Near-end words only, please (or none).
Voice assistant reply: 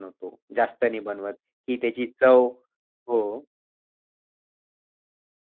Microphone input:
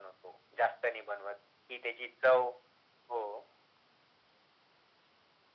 none